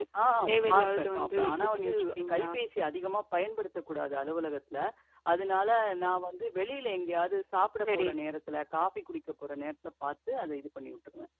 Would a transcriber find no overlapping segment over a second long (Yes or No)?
No